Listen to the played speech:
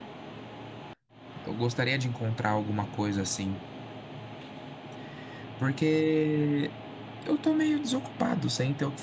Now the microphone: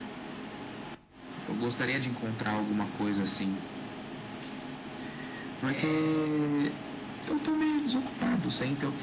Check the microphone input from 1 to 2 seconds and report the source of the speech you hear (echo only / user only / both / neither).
echo only